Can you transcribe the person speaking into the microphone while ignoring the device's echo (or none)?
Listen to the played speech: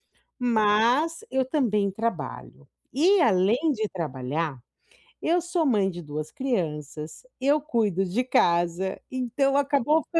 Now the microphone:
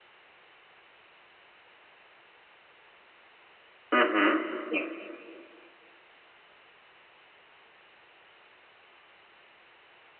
Uhum, sim.